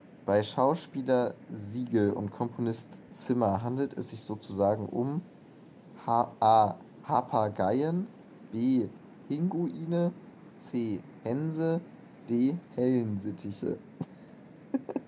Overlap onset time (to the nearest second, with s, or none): none